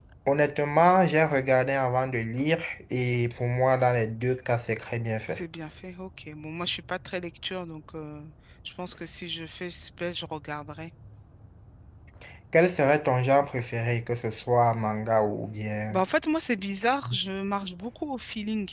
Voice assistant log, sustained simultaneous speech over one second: none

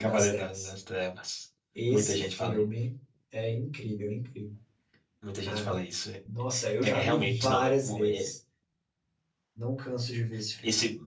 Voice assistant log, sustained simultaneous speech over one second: present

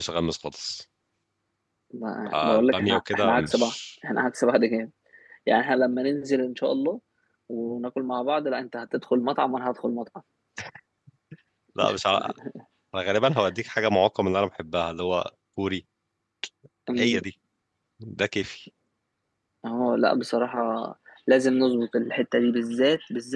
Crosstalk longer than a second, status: present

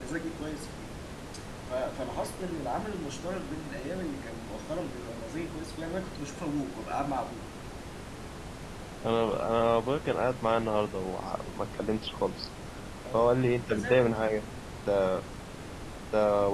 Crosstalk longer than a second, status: present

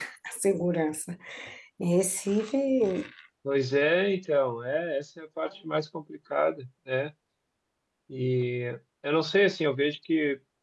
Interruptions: none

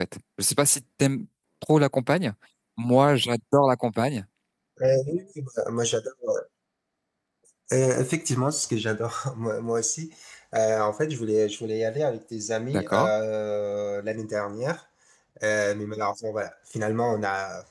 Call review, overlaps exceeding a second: none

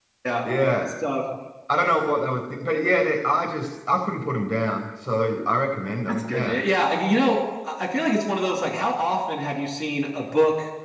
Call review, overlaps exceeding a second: none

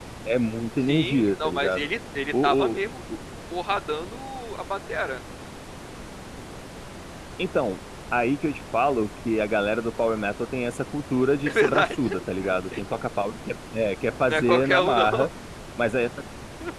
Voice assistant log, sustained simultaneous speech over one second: present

